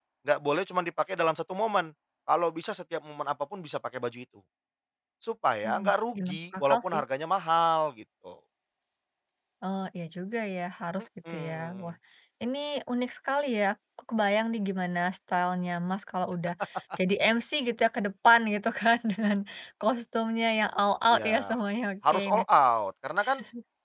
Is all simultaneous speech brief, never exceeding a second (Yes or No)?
No